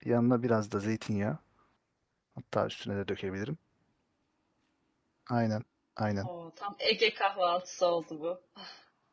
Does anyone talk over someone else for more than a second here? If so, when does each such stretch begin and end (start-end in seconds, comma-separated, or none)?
none